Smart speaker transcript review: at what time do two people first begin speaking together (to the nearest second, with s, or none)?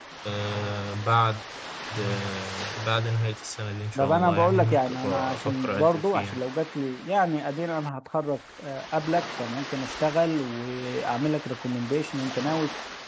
4 s